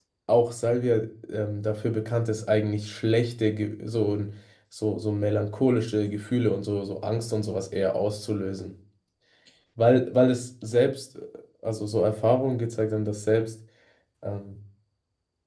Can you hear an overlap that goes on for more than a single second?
No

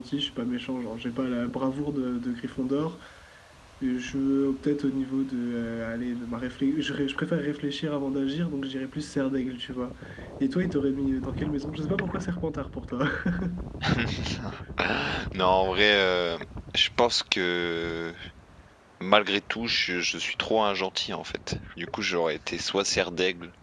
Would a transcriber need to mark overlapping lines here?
No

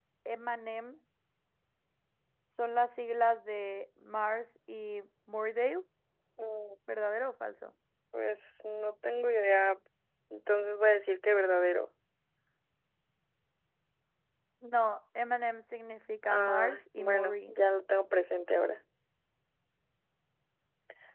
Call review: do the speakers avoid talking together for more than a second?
No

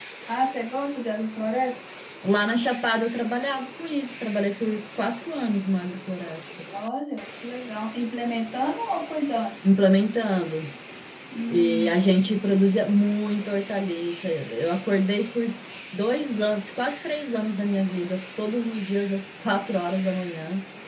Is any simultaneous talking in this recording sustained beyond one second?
No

